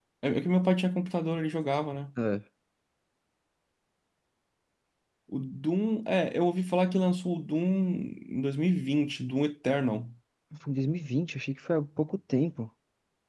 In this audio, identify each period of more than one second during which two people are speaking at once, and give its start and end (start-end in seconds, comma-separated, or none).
none